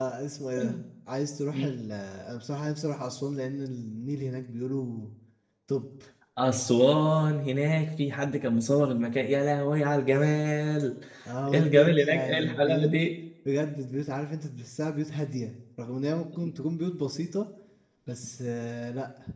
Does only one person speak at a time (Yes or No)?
No